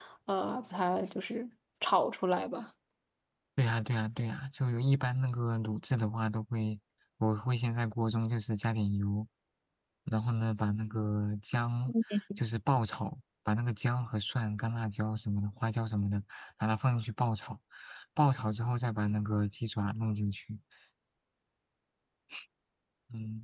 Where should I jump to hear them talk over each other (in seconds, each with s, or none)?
none